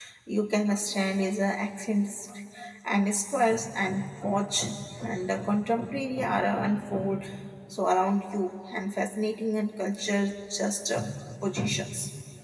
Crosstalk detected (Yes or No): No